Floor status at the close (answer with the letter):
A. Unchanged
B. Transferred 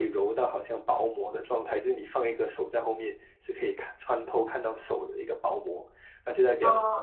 B